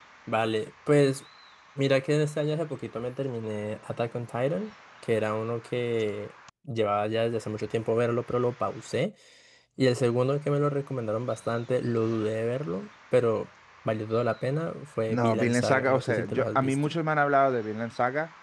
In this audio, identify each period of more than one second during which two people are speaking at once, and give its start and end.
15.1-17.0

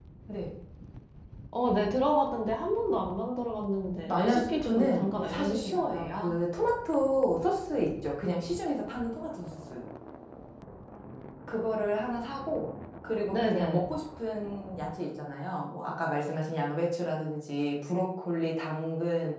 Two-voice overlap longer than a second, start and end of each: 4.1-6.3

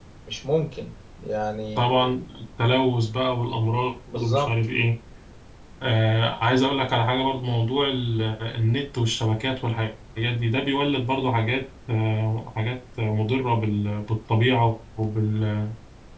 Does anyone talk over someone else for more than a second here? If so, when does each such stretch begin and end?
none

